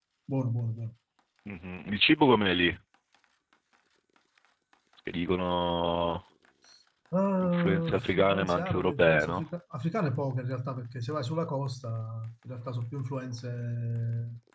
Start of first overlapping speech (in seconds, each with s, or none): 7.4 s